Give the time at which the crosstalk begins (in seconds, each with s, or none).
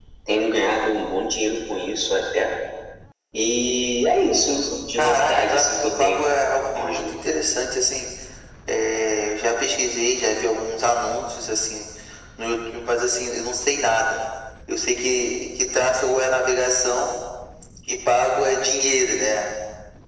5.0 s